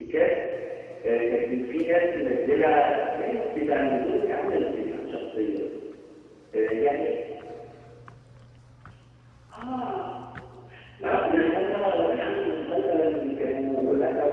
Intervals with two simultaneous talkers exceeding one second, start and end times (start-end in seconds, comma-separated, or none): 11.0-12.8